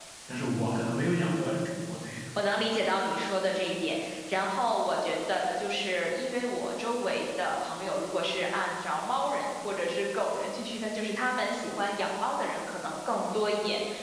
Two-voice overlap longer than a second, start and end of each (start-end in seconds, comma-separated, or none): none